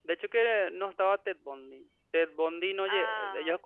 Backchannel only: Yes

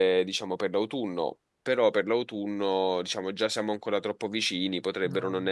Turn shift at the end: No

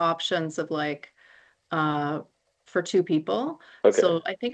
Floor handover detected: No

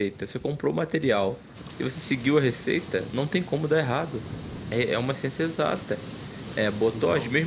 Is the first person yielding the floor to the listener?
No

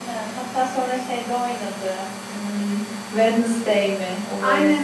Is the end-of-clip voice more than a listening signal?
Yes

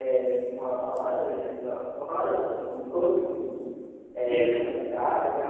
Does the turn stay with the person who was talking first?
Yes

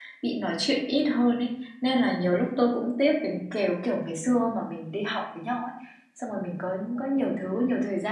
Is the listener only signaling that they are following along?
Yes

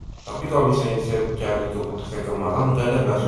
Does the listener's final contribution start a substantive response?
Yes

